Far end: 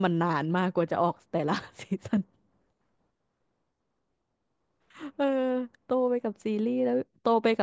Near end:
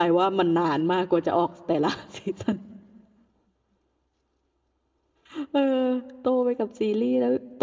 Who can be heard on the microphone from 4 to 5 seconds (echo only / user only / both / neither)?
neither